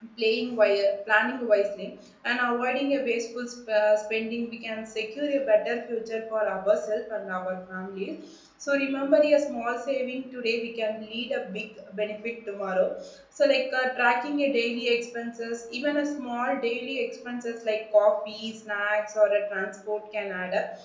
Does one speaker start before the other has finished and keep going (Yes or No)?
No